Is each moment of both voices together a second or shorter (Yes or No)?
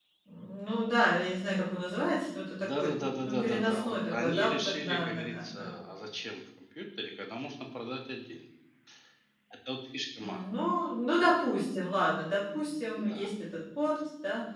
No